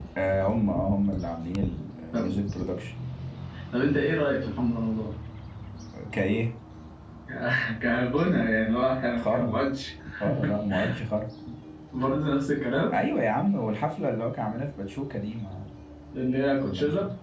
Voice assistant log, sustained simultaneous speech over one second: none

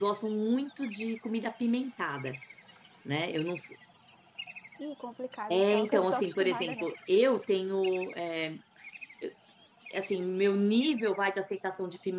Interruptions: present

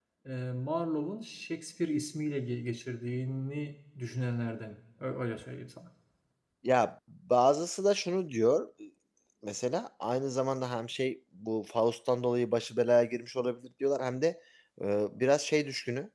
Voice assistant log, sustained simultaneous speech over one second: none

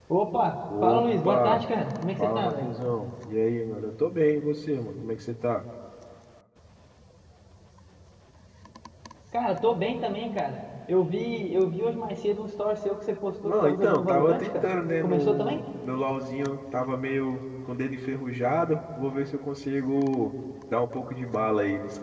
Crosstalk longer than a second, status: present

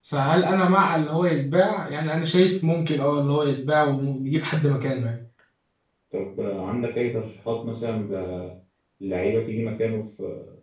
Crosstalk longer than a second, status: none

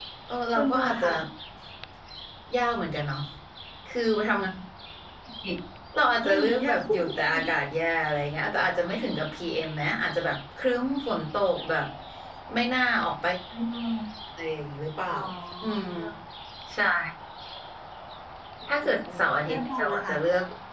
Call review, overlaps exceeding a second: present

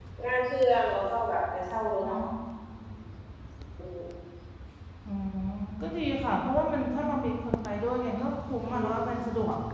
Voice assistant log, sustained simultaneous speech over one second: none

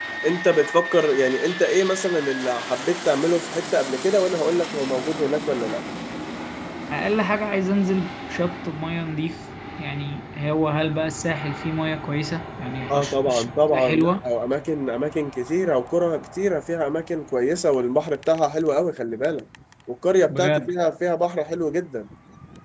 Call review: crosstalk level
present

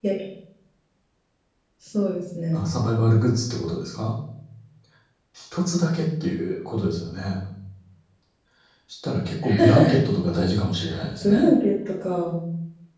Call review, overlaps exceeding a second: none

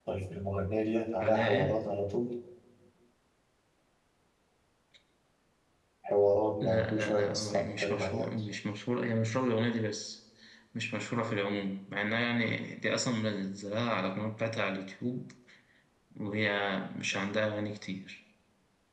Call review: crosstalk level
present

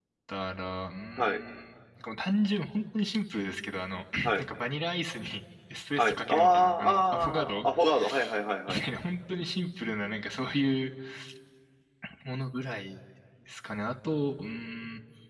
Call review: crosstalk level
present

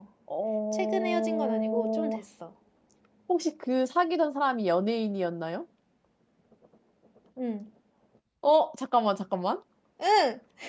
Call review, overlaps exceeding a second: present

